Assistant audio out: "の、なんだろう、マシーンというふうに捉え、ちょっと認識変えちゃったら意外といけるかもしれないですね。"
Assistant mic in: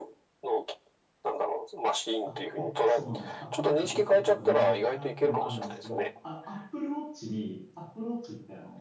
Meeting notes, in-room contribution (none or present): present